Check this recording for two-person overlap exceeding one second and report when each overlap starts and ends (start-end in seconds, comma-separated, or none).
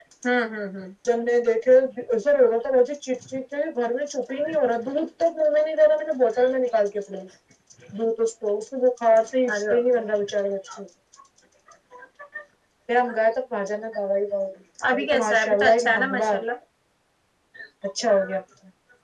15.1-16.4